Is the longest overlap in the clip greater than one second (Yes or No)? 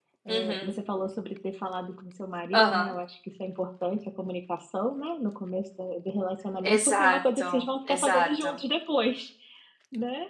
Yes